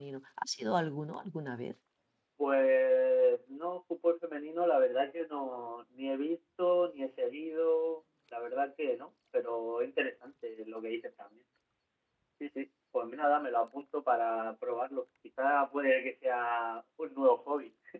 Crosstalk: none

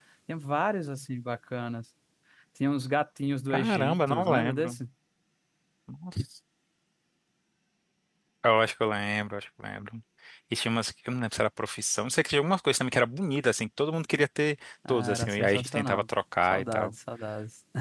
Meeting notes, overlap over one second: present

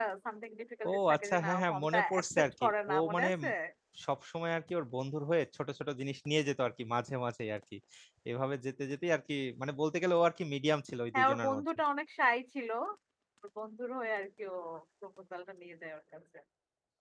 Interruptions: present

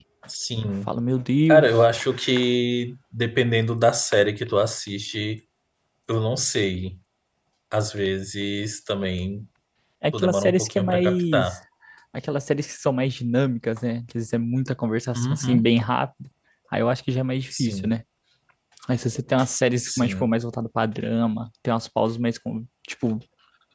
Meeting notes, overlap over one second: present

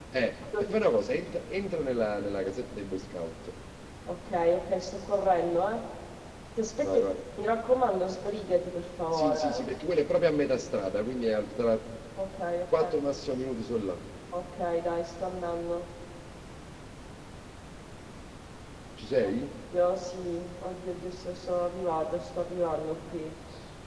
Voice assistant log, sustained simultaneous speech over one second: none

